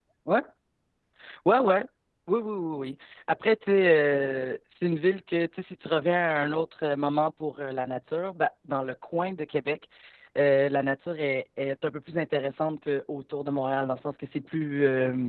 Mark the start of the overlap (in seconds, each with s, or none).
none